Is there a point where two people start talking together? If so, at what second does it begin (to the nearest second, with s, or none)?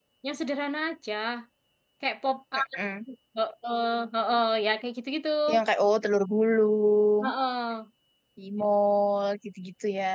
none